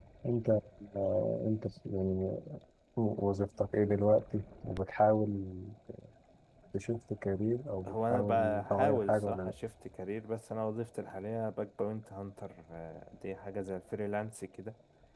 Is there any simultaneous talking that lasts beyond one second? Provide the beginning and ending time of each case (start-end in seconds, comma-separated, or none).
7.9-9.5